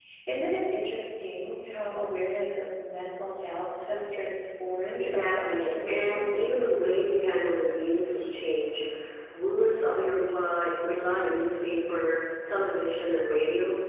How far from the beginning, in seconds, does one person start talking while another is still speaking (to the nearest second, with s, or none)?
5 s